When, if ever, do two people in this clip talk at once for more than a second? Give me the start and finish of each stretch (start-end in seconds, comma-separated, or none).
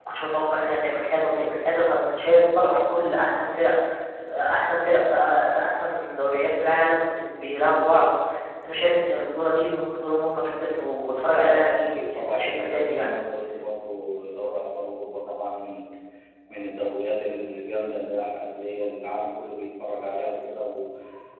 11.4-13.1